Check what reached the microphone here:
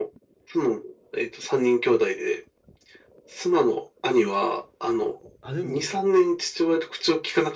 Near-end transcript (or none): あ、でも、